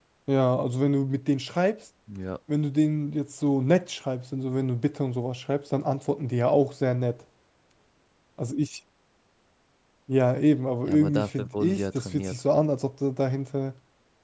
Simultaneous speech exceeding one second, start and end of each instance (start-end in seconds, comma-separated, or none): 10.9-12.4